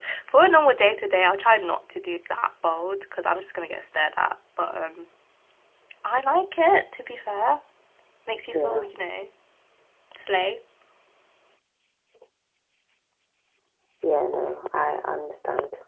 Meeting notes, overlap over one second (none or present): none